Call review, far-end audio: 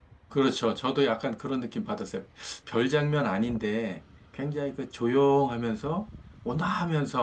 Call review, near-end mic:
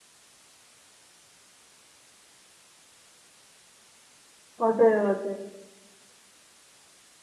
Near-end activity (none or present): present